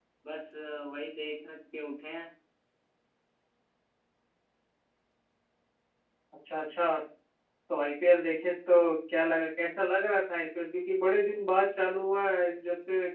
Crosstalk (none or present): none